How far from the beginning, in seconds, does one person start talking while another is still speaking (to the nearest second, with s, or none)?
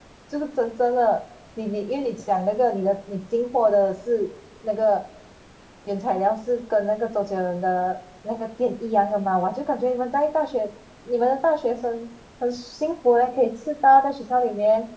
none